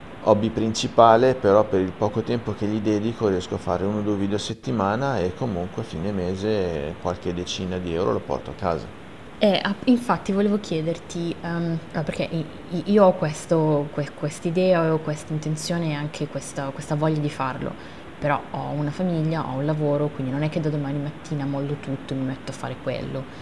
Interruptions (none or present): none